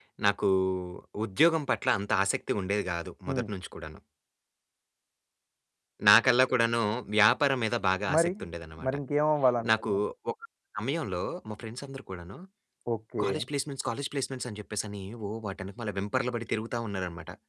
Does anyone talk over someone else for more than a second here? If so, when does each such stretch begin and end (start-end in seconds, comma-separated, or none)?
none